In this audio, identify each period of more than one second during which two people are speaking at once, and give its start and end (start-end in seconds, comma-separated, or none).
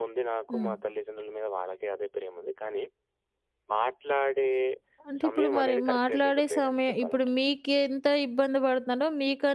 5.2-7.3